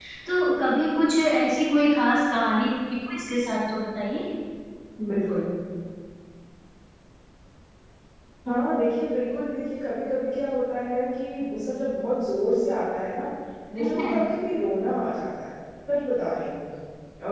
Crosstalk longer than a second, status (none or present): none